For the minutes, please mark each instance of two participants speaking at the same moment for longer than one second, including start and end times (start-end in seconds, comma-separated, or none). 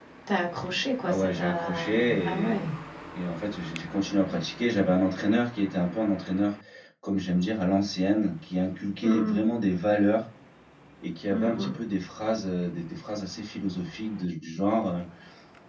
1.0-2.6